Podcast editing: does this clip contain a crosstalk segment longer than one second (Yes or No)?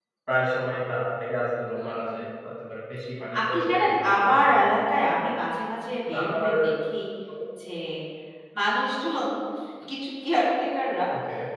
Yes